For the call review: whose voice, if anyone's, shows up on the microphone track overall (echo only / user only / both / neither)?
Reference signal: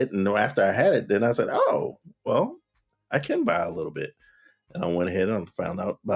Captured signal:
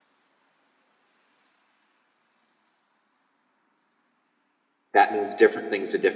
user only